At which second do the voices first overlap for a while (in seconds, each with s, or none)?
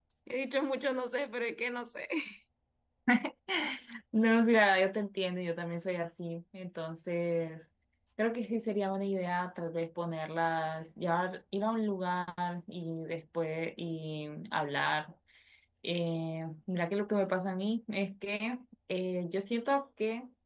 none